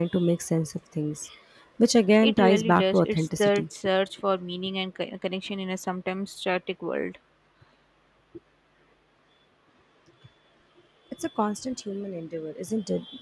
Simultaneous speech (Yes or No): Yes